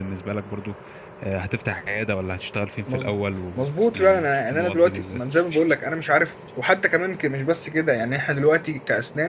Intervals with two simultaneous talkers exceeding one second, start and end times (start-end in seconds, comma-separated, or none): 3.6-5.2